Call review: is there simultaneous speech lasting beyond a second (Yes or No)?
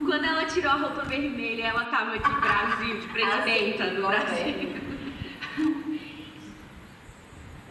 Yes